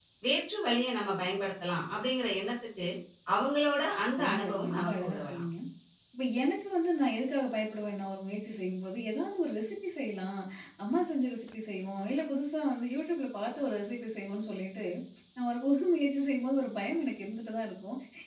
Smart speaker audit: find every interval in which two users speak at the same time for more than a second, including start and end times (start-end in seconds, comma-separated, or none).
4.2-5.4